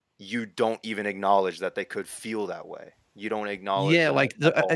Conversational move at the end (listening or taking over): taking over